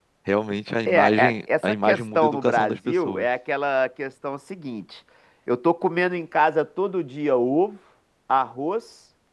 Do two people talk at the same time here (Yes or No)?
Yes